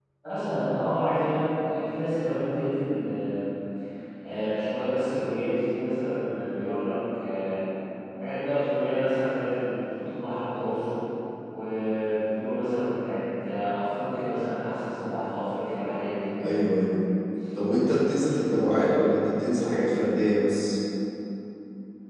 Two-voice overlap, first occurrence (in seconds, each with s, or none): none